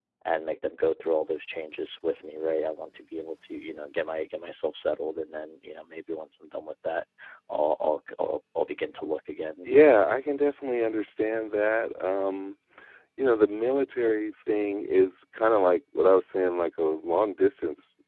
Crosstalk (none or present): none